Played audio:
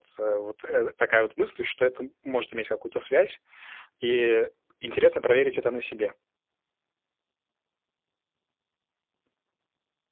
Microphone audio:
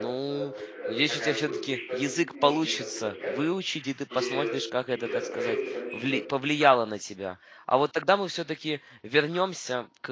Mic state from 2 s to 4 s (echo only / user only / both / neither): both